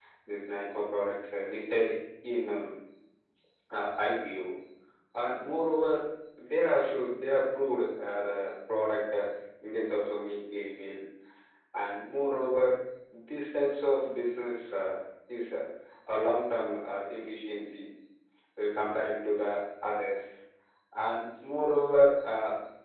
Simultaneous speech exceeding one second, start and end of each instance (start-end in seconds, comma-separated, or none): none